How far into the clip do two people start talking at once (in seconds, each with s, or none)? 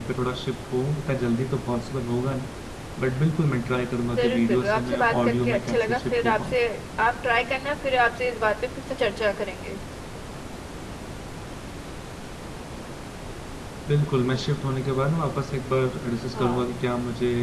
4.2 s